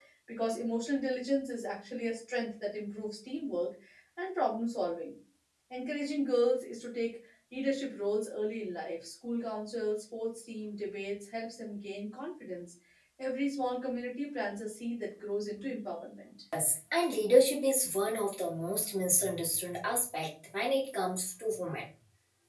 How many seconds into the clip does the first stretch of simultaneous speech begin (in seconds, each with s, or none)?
none